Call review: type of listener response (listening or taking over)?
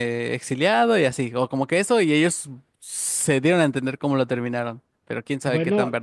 taking over